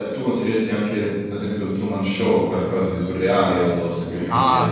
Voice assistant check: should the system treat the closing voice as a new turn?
Yes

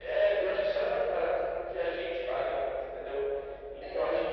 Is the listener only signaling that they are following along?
Yes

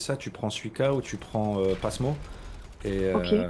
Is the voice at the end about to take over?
No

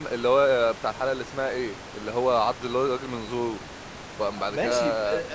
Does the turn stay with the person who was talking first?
No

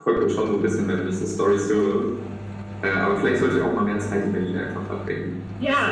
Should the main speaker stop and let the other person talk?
Yes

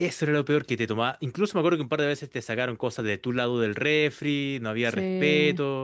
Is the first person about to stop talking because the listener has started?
No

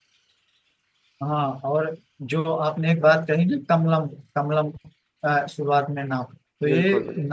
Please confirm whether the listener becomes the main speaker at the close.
No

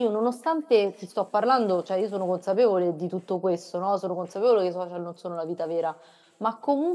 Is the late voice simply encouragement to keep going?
Yes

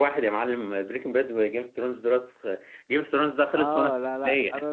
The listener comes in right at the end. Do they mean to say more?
Yes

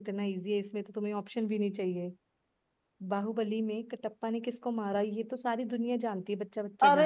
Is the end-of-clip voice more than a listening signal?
Yes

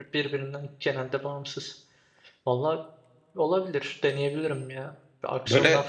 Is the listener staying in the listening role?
Yes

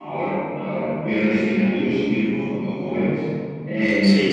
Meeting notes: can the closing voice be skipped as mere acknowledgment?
Yes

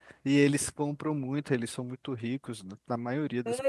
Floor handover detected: Yes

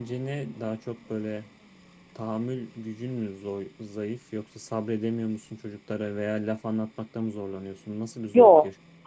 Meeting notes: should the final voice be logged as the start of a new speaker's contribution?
Yes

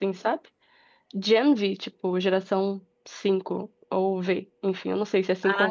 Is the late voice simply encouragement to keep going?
No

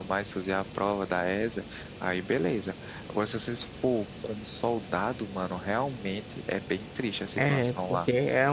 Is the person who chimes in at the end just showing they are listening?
No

